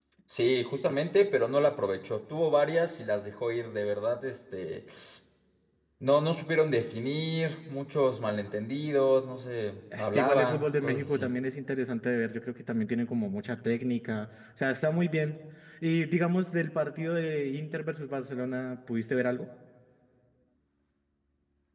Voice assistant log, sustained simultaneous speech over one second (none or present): present